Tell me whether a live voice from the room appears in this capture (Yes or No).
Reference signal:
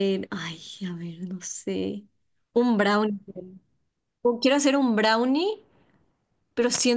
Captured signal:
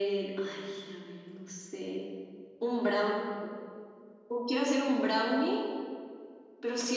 No